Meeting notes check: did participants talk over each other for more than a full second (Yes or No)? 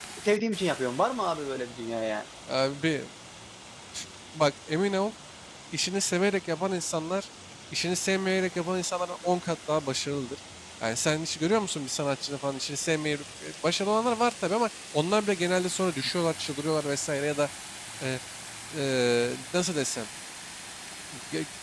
No